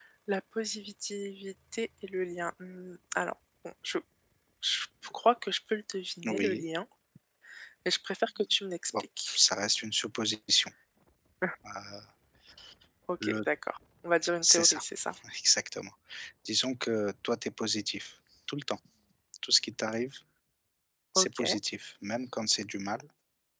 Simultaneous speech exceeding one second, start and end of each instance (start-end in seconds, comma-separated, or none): none